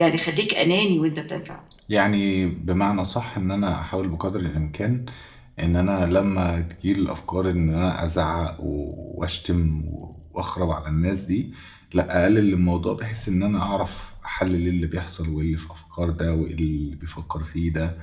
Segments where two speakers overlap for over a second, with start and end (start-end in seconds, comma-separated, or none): none